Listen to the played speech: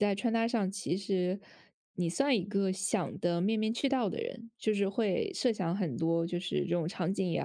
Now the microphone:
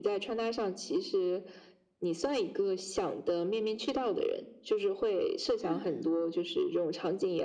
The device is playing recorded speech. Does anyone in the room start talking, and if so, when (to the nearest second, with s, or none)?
6 s